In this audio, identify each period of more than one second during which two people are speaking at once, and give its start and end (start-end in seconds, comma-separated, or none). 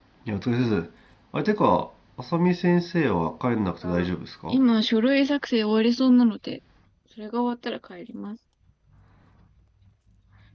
none